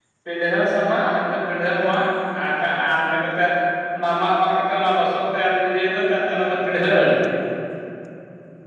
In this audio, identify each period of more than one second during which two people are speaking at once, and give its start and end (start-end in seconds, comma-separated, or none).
none